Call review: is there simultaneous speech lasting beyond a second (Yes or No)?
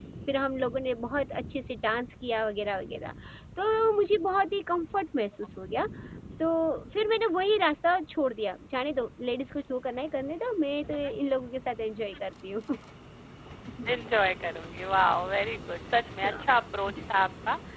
No